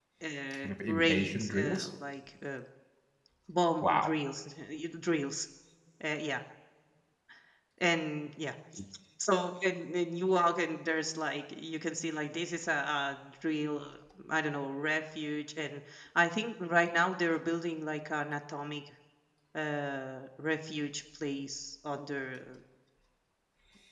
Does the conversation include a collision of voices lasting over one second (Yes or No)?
Yes